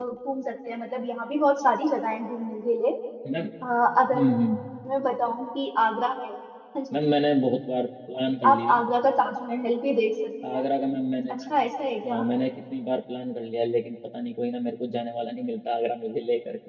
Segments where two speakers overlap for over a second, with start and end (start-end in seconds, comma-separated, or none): none